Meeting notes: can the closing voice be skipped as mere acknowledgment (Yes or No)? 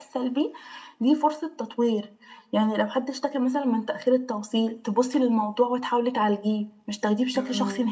No